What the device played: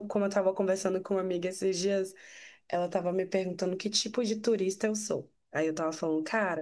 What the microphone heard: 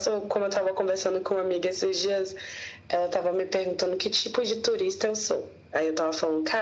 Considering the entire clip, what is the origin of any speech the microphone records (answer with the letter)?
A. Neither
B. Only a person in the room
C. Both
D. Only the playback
D